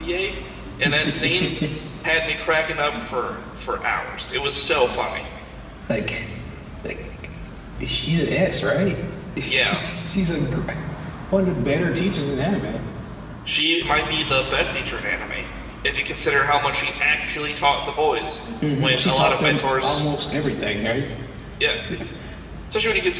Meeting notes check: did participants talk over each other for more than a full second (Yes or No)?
Yes